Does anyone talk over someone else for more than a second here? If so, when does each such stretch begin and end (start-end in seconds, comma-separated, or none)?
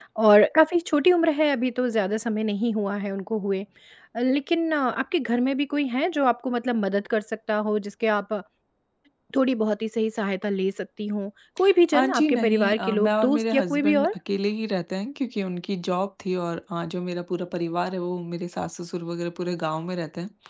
11.9-14.1